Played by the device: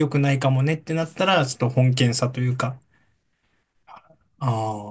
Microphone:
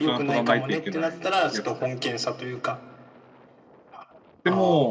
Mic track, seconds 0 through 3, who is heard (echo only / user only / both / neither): both